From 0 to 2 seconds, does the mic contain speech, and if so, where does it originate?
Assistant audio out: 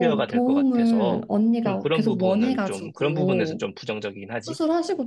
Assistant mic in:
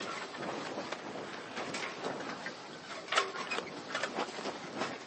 neither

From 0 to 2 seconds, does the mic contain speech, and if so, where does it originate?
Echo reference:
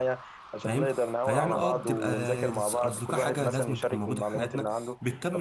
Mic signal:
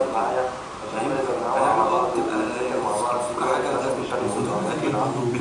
echo only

